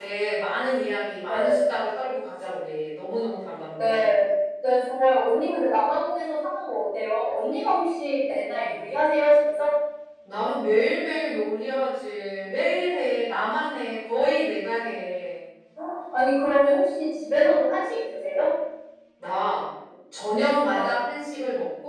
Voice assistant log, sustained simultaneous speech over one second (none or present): none